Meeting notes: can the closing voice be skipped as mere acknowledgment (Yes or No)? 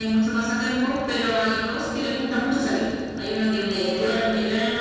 Yes